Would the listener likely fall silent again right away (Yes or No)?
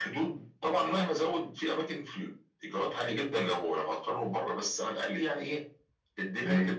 Yes